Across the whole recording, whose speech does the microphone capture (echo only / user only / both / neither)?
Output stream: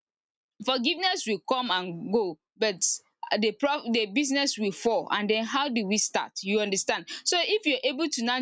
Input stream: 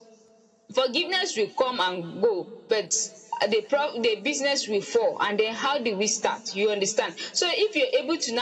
echo only